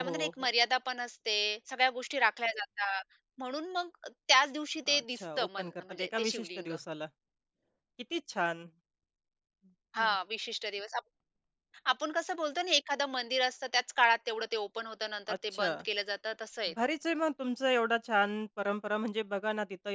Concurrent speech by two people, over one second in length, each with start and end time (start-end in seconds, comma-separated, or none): 4.9-6.8